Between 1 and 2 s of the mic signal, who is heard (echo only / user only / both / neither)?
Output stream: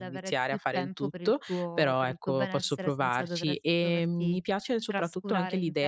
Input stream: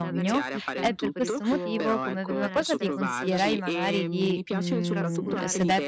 both